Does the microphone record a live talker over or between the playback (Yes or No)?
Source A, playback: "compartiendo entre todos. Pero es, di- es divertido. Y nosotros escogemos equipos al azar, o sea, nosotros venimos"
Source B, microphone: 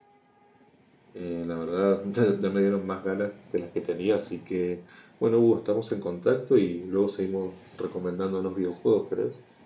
Yes